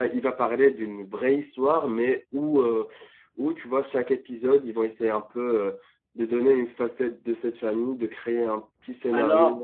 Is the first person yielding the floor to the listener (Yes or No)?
Yes